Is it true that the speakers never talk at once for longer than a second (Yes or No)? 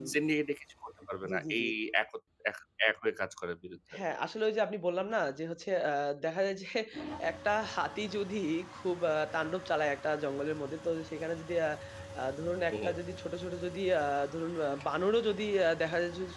Yes